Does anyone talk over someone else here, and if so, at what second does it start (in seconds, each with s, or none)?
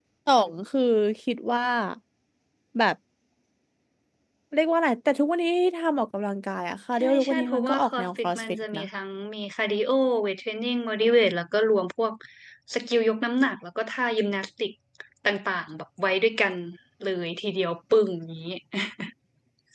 7.0 s